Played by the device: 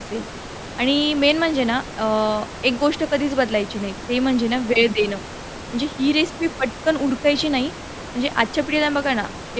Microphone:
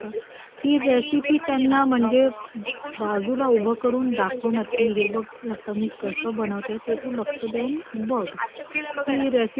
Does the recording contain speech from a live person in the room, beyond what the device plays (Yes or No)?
Yes